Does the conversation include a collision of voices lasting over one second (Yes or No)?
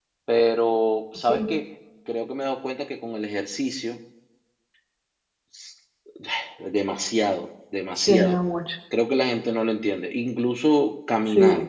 No